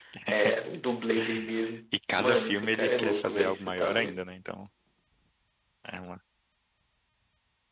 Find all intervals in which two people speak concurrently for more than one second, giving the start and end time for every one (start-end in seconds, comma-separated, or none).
2.1-4.2